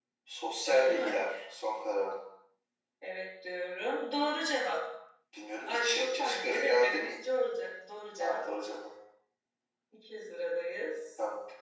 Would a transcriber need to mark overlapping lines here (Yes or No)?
Yes